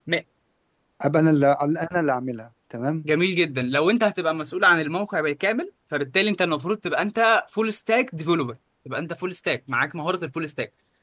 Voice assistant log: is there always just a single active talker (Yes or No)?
Yes